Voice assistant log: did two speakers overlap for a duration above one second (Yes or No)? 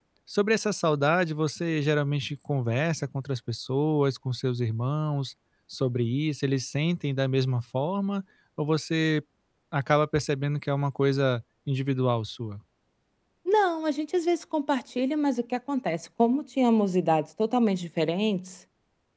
No